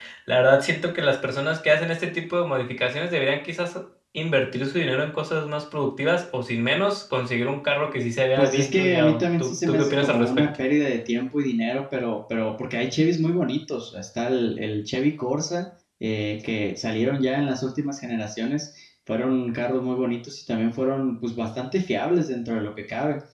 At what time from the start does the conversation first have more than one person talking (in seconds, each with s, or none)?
8.4 s